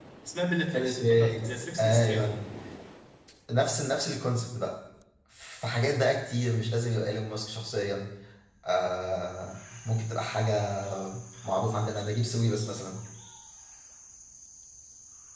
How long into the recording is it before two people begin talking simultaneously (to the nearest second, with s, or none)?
1 s